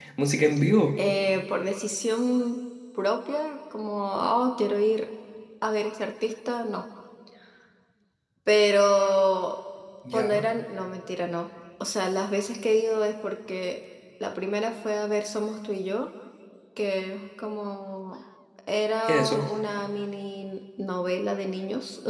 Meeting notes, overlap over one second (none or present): none